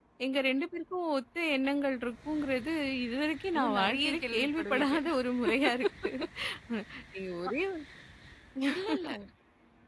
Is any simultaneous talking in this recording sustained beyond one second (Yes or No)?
Yes